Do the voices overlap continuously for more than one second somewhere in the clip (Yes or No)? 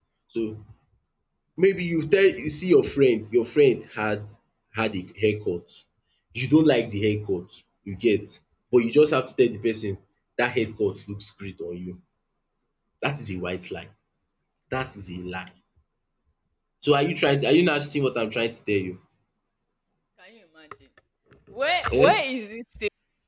No